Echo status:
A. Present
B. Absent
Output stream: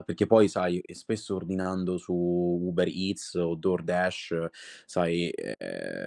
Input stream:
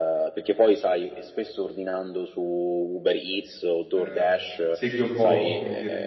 A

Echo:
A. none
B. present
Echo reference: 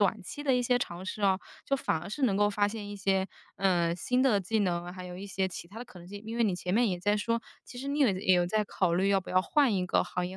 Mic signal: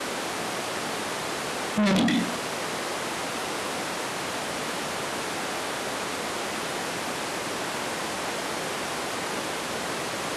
A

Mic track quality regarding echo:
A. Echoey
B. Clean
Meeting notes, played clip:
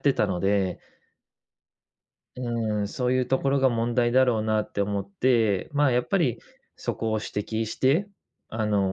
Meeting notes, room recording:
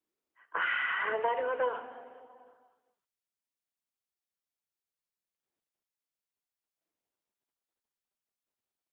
B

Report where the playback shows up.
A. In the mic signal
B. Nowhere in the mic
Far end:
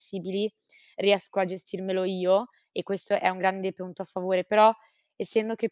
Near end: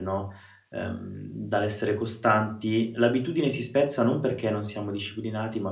B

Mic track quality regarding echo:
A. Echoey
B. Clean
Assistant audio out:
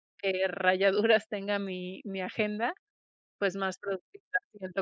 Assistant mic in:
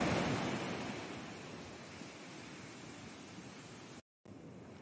B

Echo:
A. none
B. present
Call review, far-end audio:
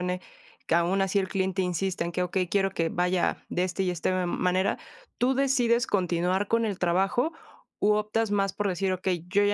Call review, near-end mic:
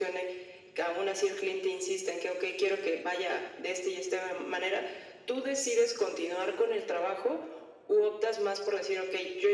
B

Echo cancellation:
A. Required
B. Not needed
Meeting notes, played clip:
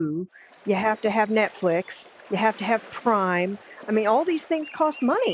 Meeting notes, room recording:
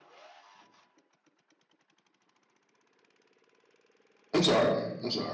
B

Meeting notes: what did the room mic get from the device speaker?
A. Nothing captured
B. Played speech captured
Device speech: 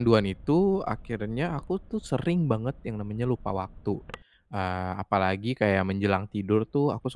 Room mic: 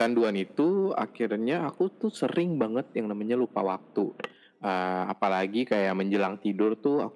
B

